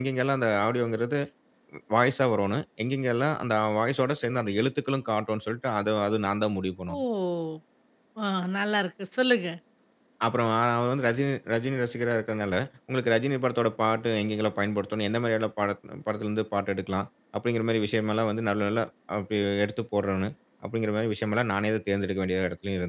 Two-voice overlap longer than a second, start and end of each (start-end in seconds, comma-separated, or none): none